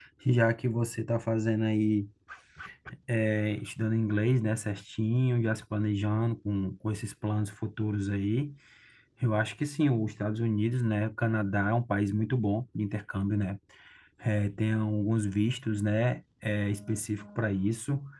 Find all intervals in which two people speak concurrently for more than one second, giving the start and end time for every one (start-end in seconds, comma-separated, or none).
none